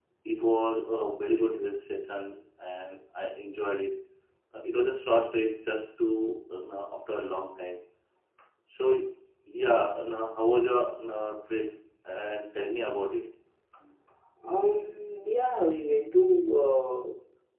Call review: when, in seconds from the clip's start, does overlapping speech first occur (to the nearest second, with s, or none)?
none